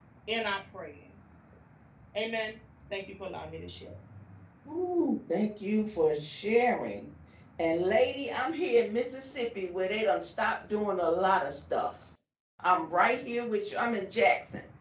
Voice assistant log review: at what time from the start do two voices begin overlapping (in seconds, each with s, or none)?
none